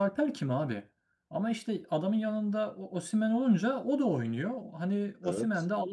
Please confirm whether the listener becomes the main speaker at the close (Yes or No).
No